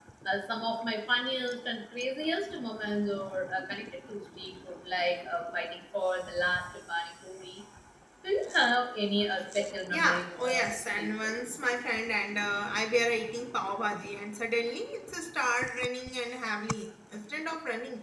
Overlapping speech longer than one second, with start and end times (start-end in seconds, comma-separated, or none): 9.9-11.3